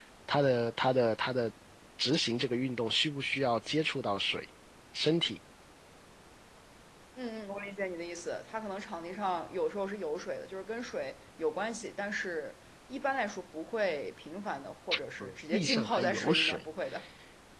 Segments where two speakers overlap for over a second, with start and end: 15.2-16.6

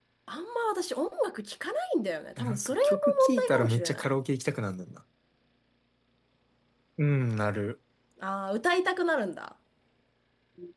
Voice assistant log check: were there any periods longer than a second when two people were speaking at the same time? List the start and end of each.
2.4-4.1

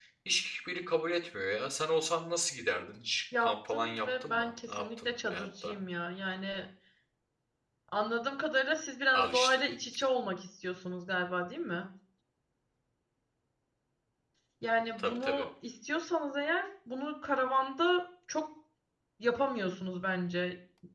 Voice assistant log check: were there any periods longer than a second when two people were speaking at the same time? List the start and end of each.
3.4-5.7

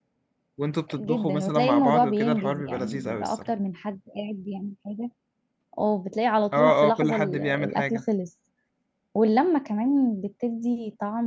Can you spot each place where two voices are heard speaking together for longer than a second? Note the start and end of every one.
1.0-3.5, 6.5-8.0

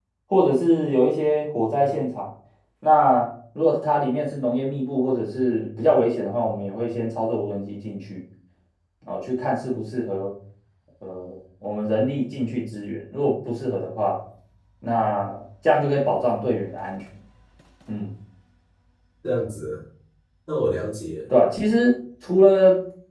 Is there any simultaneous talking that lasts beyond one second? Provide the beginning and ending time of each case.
none

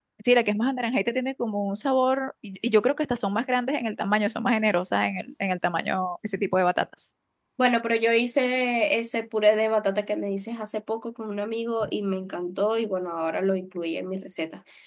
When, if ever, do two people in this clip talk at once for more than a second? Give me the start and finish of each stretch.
none

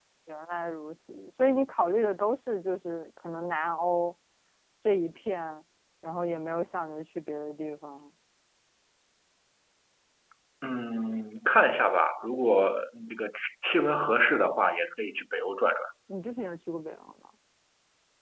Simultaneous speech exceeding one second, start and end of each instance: none

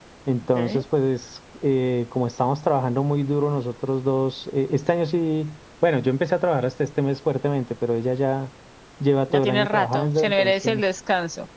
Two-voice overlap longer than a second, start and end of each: 9.3-10.8

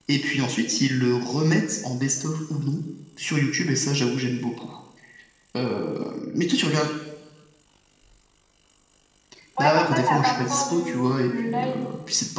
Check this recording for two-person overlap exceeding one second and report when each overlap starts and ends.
9.6-11.7

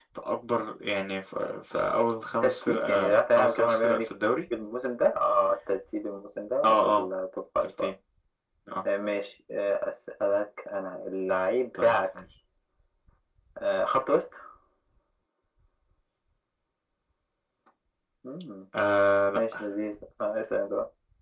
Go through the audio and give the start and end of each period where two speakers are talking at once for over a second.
2.4-4.0

